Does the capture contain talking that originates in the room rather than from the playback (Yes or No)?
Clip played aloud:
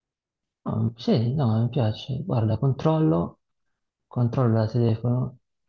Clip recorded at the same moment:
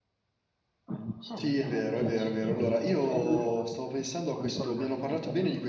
Yes